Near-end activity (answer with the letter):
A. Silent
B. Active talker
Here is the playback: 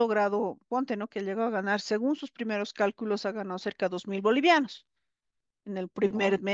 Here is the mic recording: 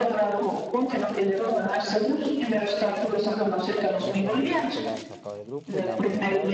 B